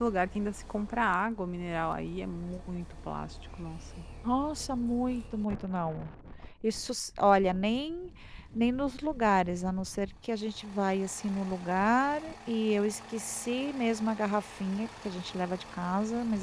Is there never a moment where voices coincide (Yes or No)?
Yes